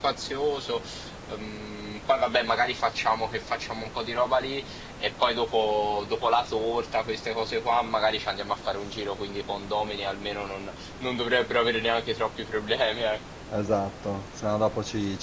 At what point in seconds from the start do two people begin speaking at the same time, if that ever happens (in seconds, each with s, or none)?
none